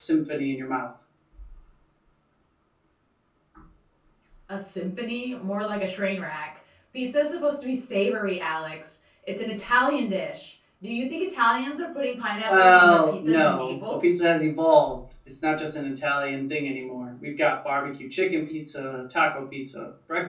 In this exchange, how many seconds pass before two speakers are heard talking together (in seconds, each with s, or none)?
12.4 s